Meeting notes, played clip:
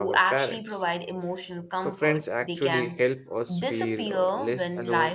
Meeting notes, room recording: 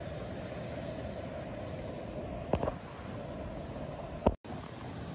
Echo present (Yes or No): No